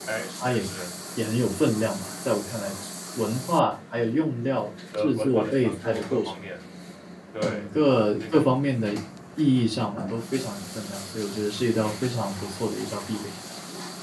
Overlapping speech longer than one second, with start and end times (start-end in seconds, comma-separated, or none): 5.0-6.4